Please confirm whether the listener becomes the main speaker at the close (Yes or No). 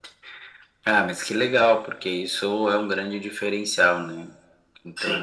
No